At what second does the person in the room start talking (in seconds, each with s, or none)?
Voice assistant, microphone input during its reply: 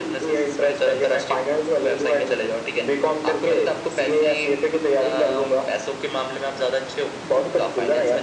none